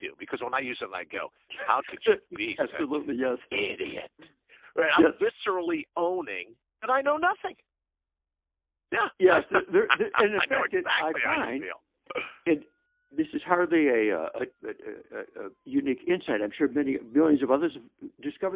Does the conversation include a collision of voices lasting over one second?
Yes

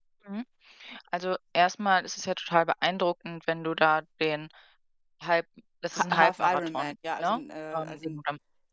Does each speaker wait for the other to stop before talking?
No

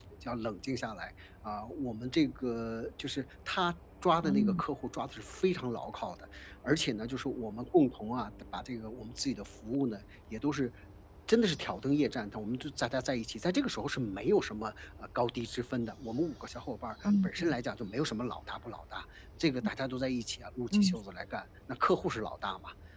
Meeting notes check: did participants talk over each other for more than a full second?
No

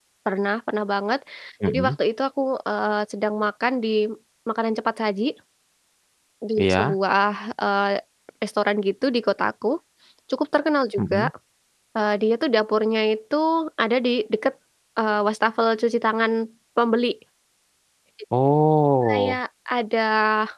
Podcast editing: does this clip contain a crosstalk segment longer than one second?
No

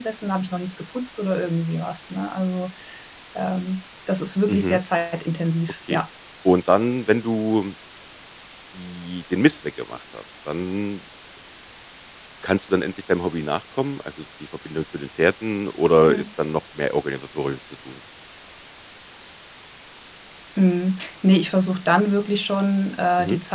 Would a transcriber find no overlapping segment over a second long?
Yes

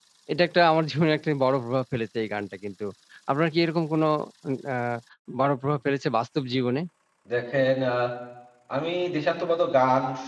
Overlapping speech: No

